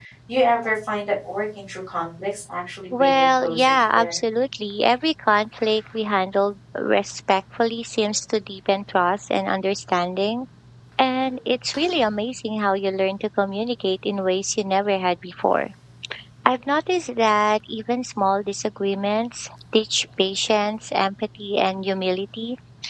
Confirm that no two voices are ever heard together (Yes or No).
No